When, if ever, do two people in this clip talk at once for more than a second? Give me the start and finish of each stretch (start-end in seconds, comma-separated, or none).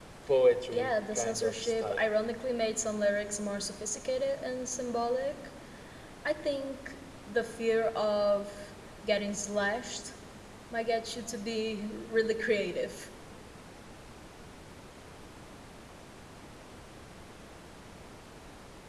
0.7-2.1